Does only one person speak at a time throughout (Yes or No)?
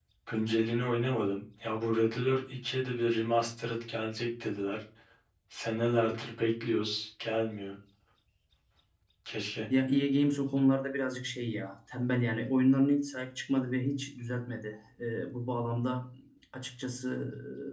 Yes